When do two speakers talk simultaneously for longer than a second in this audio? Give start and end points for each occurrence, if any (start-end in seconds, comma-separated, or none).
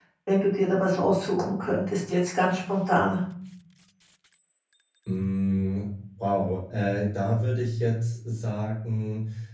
none